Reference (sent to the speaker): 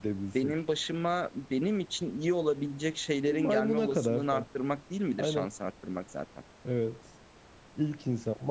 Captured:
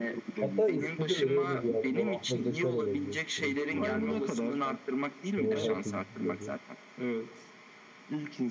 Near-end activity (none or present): present